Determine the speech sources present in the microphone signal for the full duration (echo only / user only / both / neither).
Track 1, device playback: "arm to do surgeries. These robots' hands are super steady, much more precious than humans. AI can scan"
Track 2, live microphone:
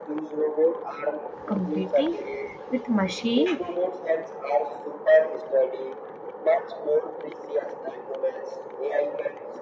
both